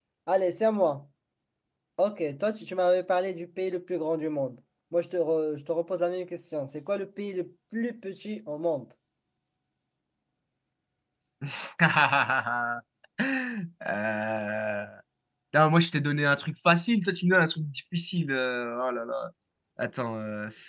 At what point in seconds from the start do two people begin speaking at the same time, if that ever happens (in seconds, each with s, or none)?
none